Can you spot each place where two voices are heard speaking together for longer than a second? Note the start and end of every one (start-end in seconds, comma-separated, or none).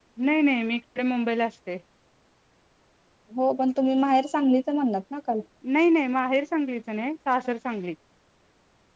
none